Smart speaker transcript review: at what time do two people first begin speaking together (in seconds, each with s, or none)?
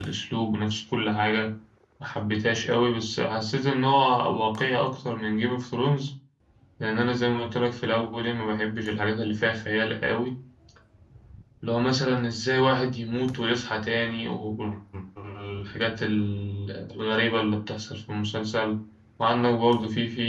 none